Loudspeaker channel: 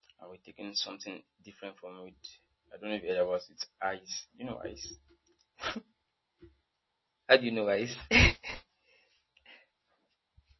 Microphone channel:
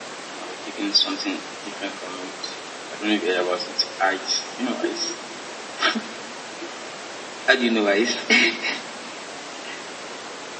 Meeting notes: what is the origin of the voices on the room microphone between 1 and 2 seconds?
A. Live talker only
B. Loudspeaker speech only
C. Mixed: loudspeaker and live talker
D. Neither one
B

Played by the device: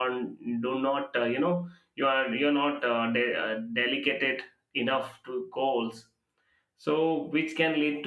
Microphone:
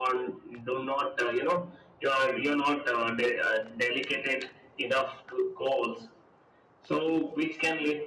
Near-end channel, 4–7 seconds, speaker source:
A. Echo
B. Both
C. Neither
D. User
A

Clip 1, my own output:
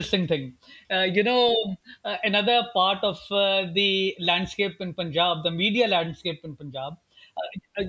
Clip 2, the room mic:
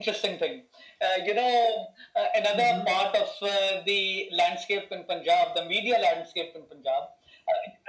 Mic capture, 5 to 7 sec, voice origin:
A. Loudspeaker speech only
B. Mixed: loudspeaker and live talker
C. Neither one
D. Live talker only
A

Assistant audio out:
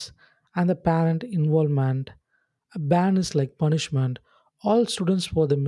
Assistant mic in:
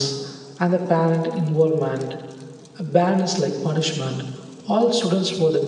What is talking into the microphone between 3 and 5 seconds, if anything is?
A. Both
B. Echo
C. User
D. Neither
B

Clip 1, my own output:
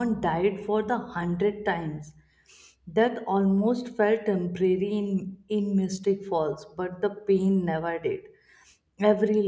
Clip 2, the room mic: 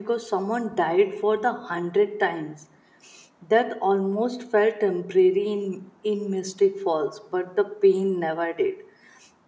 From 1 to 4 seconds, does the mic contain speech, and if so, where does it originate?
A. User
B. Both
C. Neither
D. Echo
D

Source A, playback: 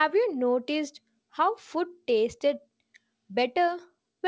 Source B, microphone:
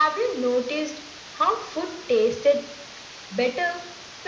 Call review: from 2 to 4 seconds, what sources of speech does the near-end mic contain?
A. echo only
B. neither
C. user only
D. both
A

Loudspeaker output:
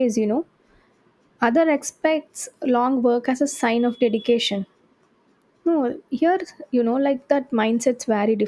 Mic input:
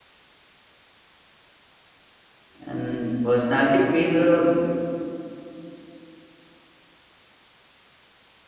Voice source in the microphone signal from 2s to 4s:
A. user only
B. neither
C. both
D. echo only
A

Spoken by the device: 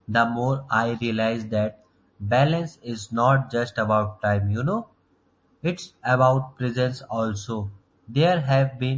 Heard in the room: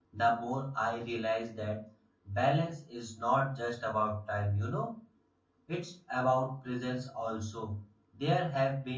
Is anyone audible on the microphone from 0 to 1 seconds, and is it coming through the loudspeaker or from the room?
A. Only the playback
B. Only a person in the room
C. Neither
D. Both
A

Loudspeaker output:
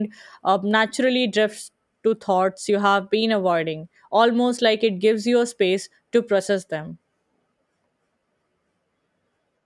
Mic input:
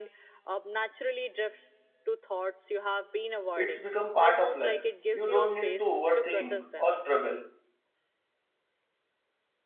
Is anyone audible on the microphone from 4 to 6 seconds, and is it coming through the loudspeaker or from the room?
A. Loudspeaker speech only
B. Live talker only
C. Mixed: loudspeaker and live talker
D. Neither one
C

